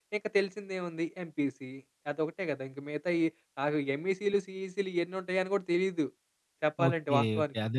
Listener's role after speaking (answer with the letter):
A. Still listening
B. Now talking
B